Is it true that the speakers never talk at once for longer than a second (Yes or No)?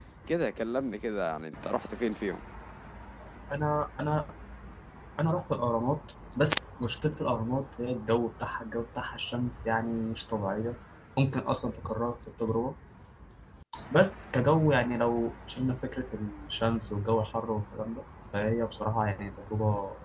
Yes